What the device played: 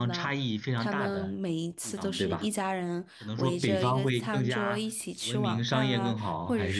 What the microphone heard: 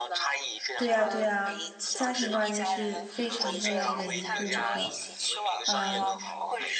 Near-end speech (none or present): present